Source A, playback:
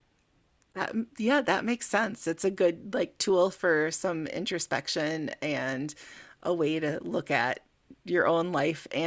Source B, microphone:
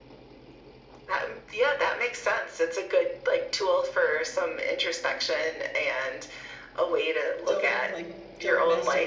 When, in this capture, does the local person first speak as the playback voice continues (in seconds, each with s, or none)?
7.5 s